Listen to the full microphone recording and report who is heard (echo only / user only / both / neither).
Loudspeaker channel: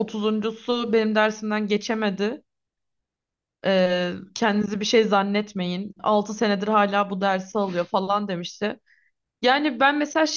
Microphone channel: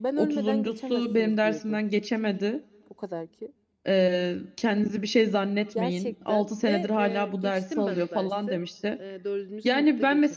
both